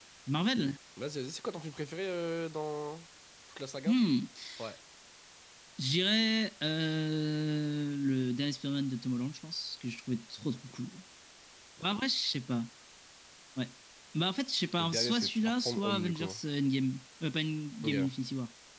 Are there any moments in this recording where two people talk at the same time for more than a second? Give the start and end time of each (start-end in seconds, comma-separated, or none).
14.8-16.3